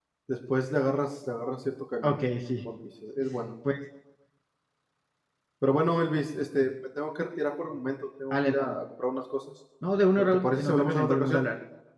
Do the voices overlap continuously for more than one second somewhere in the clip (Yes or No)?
Yes